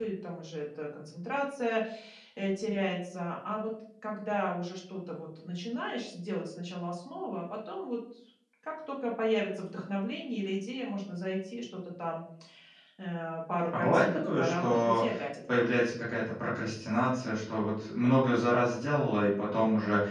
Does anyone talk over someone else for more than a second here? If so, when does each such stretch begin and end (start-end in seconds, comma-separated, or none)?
13.8-15.0